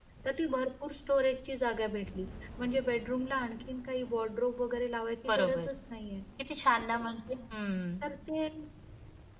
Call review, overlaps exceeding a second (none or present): none